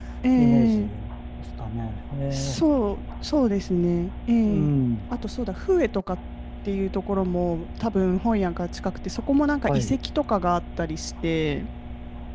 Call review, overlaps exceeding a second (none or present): none